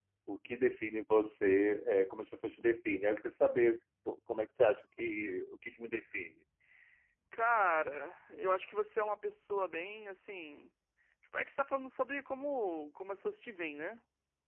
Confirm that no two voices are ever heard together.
Yes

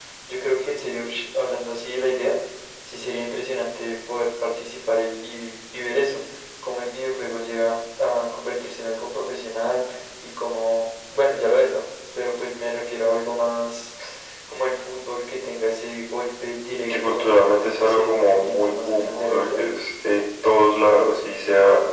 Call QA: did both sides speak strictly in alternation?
No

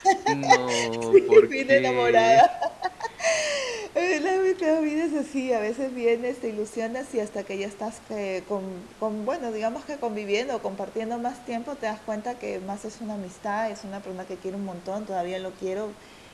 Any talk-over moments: Yes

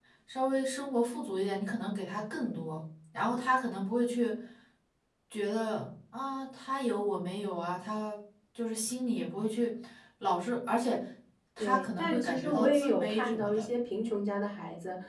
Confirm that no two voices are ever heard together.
No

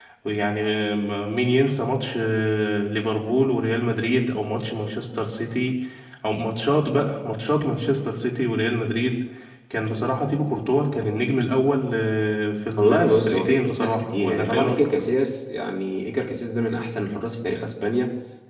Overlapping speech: Yes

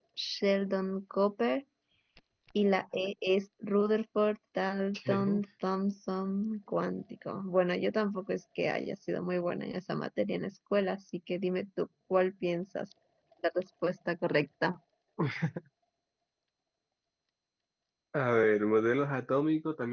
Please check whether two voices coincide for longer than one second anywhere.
No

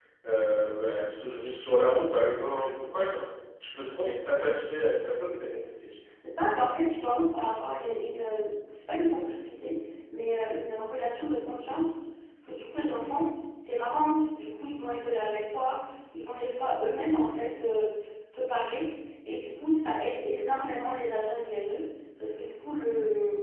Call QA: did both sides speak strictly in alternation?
Yes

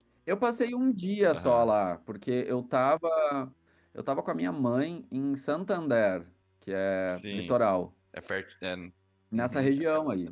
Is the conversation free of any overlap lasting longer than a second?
Yes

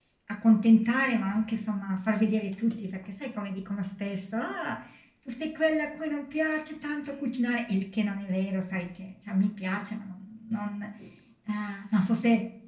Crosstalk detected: No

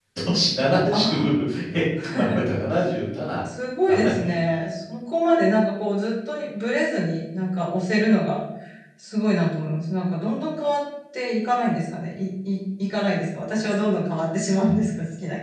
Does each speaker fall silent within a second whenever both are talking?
Yes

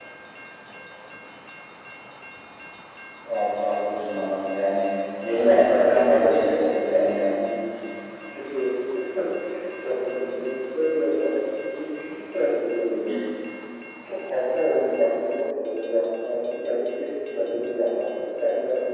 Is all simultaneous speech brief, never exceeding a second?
No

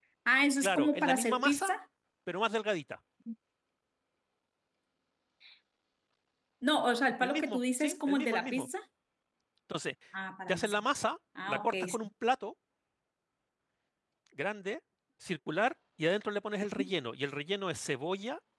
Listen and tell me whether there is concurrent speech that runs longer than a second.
Yes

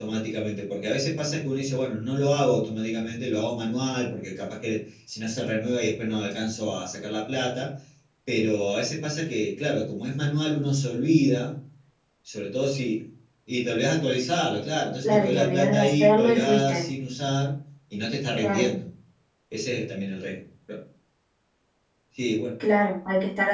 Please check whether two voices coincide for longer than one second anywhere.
Yes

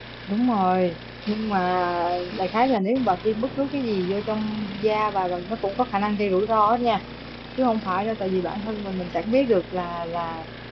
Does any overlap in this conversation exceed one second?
No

